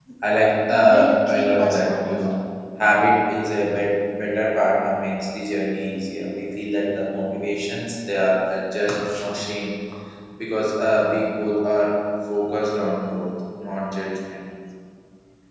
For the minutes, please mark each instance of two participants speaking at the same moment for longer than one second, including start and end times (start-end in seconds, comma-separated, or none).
0.7-2.2